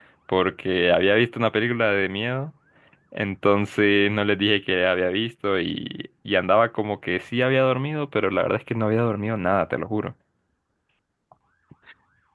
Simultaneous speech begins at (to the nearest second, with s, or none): none